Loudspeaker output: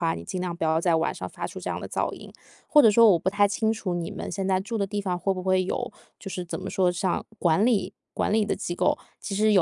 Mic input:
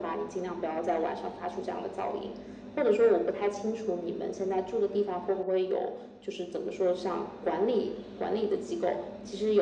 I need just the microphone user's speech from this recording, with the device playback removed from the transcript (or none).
none